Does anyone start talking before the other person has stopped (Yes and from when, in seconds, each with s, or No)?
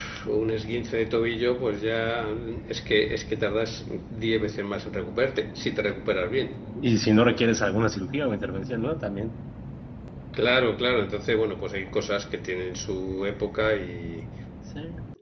No